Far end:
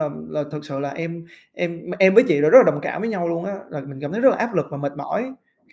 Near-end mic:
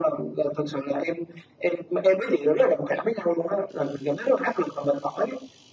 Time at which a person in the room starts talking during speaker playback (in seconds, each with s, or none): none